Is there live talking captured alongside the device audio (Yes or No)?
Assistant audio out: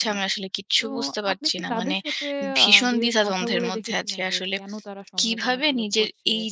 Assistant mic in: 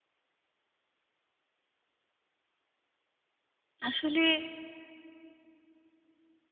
Yes